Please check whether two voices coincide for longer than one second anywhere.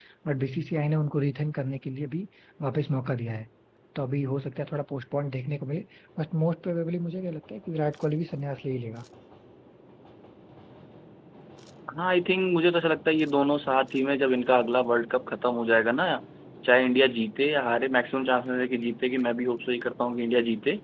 No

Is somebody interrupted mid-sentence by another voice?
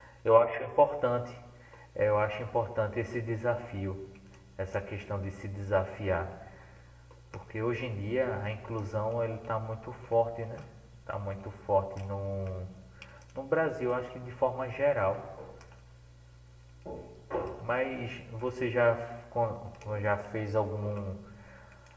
No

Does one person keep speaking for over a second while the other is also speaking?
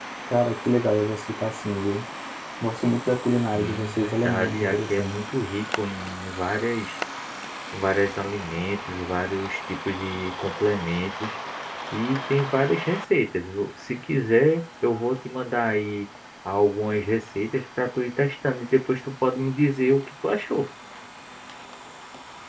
Yes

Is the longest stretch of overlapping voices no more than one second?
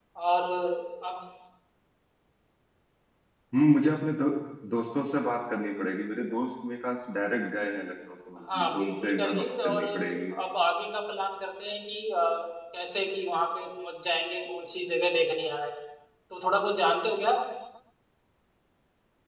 No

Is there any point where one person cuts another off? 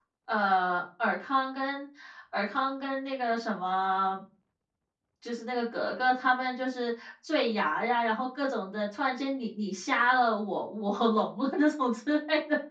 No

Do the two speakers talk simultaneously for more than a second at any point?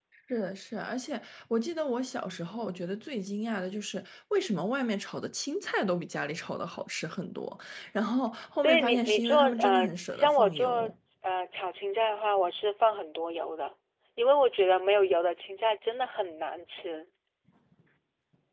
Yes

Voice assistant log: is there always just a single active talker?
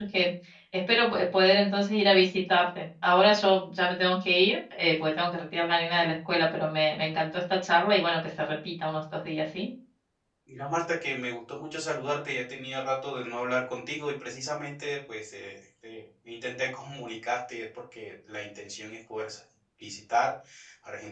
Yes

